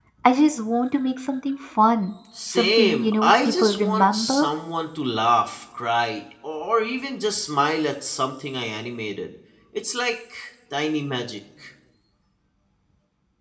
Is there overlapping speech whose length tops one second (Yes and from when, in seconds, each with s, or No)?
Yes, from 2.4 s